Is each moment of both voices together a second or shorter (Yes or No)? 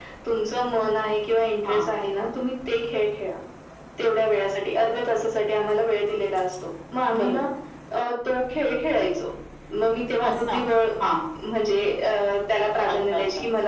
Yes